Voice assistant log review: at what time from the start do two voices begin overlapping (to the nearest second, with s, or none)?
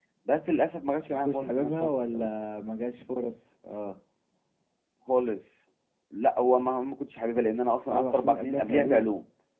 1 s